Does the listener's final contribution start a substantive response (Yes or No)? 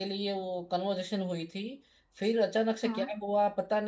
No